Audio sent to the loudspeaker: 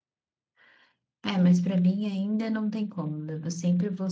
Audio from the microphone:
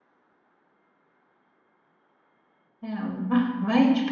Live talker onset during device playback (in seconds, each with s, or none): 2.9 s